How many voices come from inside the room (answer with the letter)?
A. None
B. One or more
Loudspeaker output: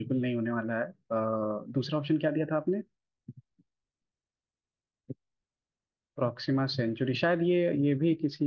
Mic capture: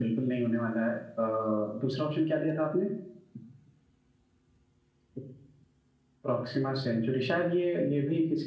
A